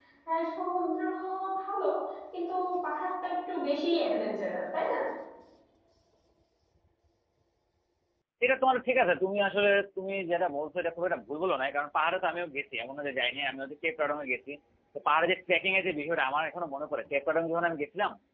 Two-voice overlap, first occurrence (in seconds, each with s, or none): none